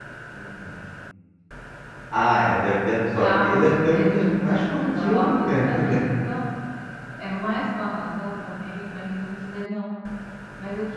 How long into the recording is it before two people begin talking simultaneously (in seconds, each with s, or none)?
3.1 s